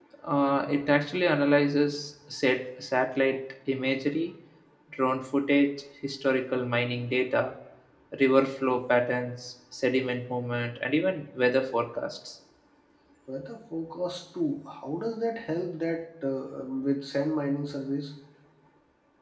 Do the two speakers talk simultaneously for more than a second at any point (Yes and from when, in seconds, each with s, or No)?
No